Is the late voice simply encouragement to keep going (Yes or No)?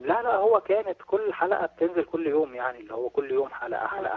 No